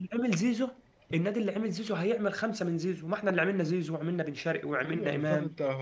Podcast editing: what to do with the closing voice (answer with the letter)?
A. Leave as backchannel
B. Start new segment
B